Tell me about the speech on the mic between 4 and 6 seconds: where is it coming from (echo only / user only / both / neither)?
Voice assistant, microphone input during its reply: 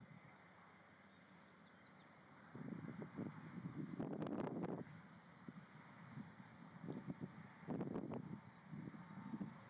neither